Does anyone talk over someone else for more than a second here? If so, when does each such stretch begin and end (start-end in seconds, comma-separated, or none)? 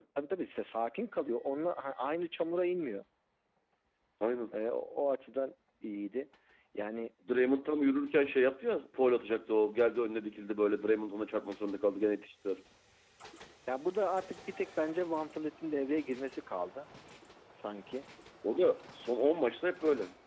none